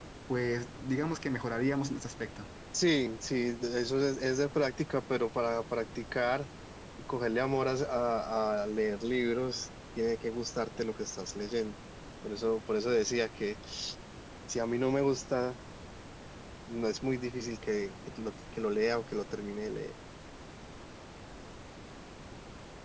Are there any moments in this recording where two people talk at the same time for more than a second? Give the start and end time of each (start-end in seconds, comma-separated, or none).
none